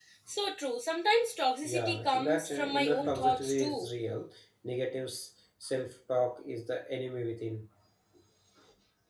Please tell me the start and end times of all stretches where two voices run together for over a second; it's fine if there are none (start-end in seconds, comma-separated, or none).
1.6-3.9